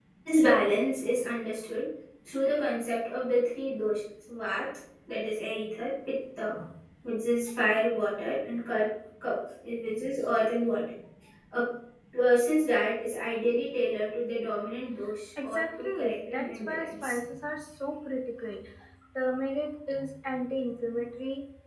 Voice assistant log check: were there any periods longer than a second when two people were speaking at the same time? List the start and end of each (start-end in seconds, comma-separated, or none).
15.4-17.2